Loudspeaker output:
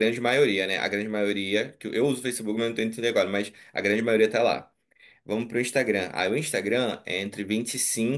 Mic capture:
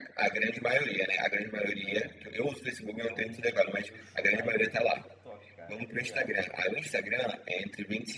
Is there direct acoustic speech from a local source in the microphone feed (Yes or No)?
Yes